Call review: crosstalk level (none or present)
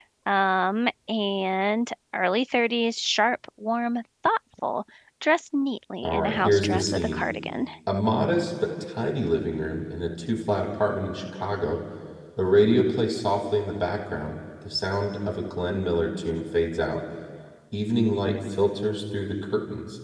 present